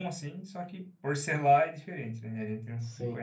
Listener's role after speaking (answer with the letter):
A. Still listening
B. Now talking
B